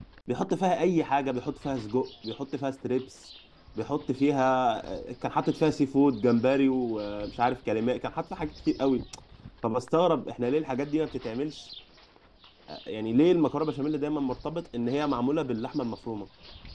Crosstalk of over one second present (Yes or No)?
No